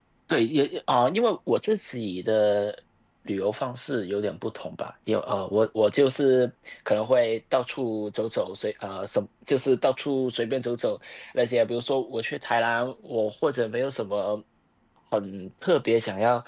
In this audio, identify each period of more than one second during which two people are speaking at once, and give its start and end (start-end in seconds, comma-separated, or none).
none